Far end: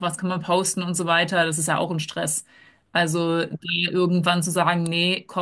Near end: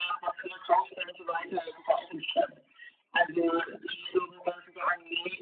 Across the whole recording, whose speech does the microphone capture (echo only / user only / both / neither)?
echo only